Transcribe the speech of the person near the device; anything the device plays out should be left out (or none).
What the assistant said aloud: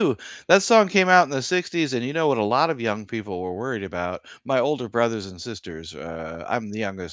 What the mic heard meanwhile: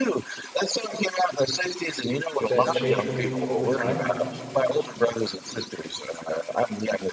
that change for me over time.